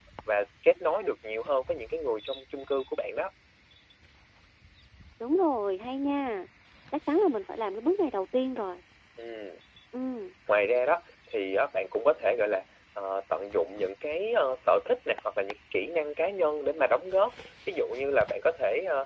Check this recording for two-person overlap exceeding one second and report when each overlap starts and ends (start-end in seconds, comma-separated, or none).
none